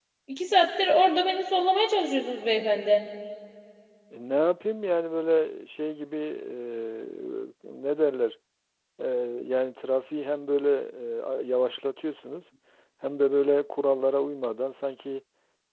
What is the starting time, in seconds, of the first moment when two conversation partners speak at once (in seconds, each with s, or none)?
none